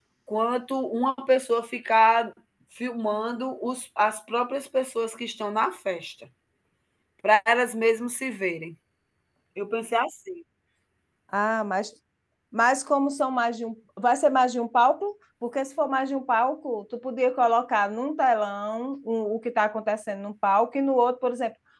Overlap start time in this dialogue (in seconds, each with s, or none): none